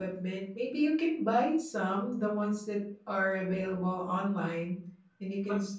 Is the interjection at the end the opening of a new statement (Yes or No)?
Yes